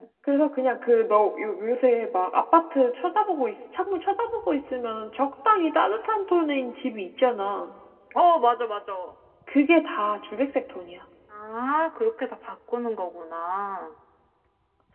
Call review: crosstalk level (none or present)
none